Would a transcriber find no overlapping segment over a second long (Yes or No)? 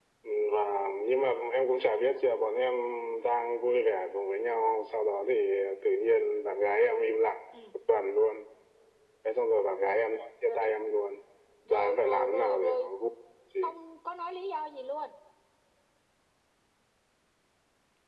No